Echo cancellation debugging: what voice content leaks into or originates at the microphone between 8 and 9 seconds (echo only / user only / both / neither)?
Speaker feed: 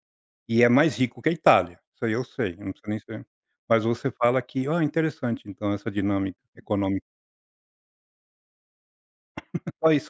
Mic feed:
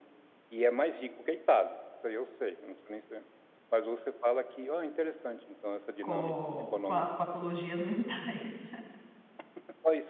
user only